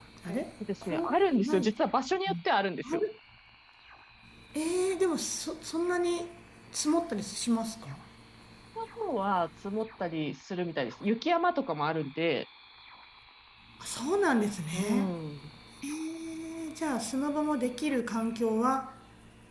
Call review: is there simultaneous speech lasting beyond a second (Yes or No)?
Yes